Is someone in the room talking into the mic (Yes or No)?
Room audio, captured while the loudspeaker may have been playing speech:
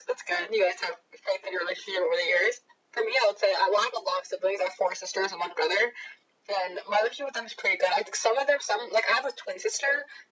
No